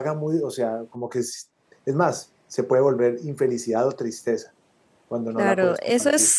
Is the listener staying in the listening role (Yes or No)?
No